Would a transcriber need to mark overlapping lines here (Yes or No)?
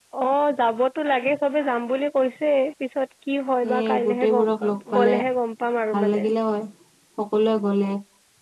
Yes